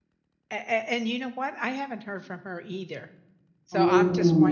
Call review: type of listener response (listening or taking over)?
listening